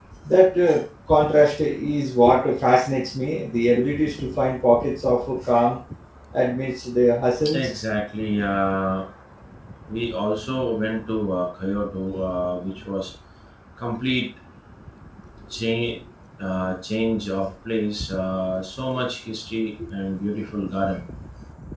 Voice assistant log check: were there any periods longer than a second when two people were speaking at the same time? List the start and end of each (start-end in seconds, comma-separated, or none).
none